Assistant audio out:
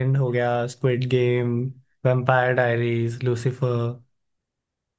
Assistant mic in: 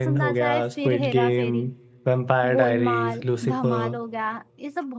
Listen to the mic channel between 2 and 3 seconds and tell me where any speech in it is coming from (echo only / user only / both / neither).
both